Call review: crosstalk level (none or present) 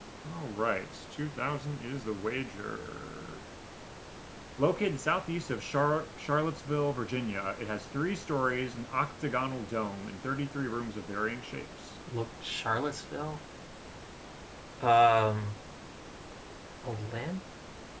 none